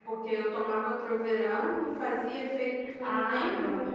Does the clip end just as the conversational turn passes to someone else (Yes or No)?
Yes